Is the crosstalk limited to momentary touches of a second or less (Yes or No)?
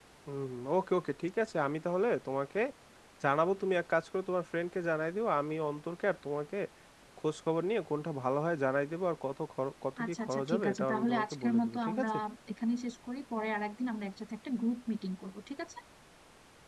No